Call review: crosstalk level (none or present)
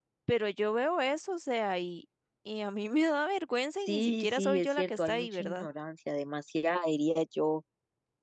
present